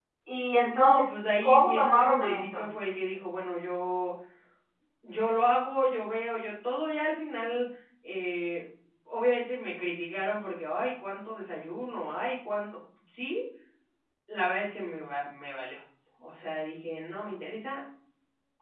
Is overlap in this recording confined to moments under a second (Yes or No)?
No